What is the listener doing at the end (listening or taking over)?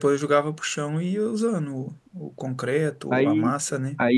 taking over